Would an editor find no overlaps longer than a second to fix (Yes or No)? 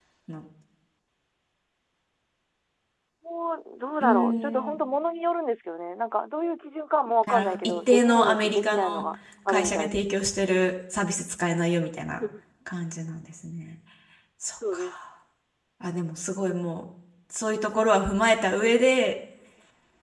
No